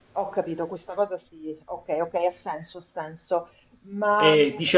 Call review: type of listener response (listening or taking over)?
taking over